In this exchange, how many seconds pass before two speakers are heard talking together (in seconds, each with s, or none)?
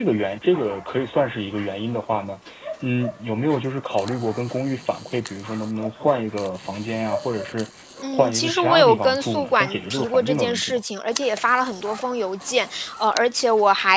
8.1 s